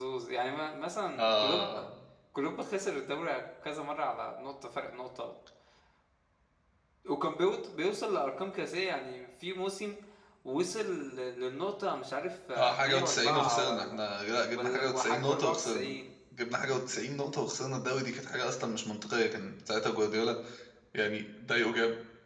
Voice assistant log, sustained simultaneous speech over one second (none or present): present